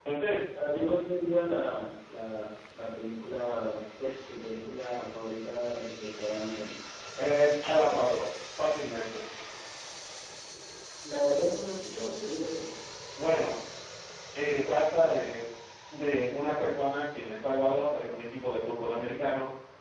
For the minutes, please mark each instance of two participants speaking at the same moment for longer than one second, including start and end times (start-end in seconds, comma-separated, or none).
none